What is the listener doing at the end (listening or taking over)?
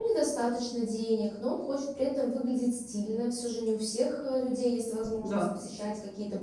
listening